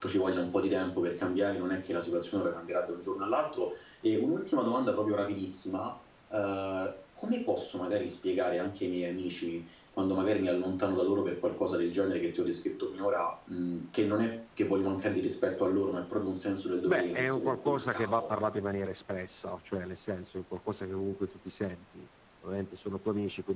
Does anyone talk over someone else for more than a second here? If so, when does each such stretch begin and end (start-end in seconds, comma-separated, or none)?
16.9-18.3